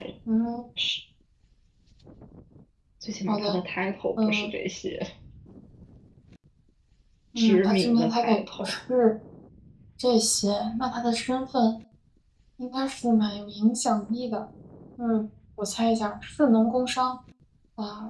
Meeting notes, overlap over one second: present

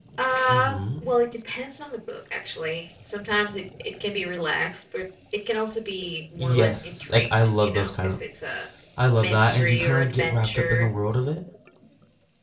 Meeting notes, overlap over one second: present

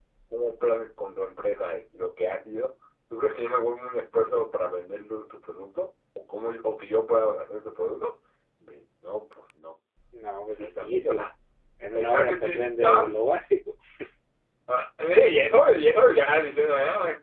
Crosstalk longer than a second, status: present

